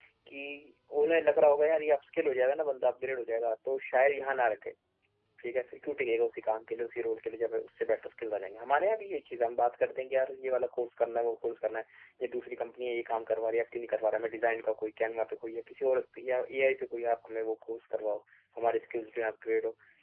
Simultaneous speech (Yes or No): No